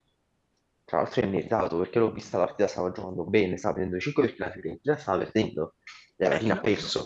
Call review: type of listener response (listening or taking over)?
listening